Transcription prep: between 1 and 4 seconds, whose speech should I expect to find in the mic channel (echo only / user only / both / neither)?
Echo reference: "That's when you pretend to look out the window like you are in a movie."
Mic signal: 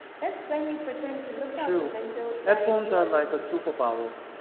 both